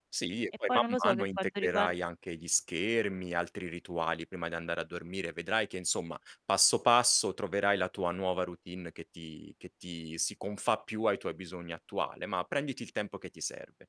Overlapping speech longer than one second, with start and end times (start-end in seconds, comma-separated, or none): 0.7-1.9